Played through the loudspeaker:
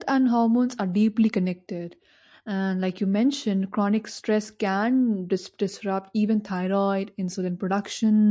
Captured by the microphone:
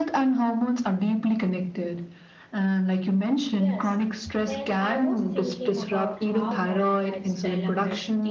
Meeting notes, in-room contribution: present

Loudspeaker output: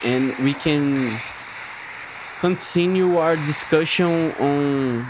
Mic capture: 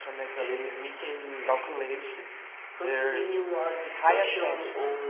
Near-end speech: present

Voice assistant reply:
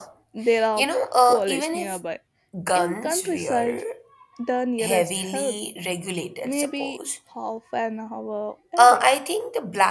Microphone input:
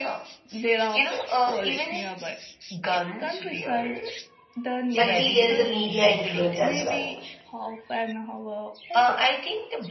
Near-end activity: present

